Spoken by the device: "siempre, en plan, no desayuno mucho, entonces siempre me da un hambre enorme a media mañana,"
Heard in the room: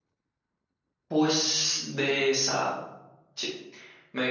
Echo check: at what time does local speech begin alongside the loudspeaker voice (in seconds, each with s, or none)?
1.1 s